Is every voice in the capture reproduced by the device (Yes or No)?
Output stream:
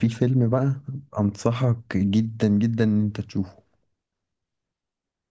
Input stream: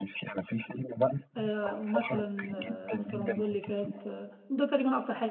No